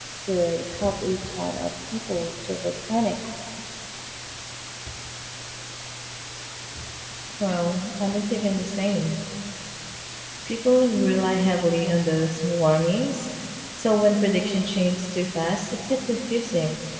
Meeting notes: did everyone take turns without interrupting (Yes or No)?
Yes